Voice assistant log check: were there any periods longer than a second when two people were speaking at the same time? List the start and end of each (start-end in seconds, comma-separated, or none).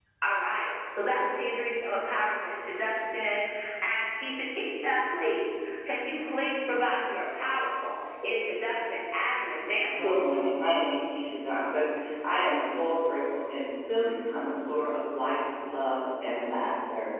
none